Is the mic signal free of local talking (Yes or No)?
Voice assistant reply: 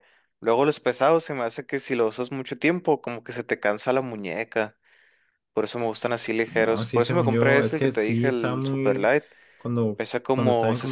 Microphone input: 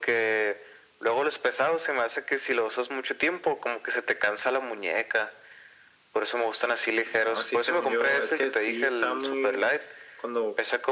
Yes